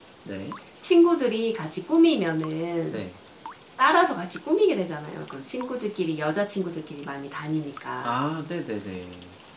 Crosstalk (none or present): none